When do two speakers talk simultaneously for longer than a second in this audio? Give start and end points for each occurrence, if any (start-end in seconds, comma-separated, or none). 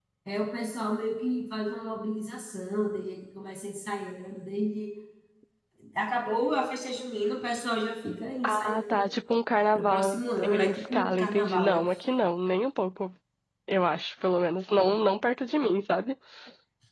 9.8-11.8